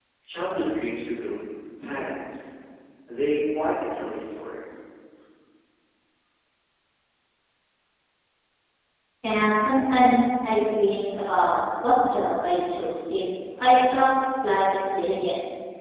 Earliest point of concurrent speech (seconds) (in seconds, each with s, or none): none